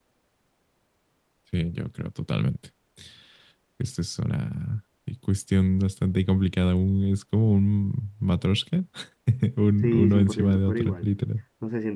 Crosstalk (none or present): present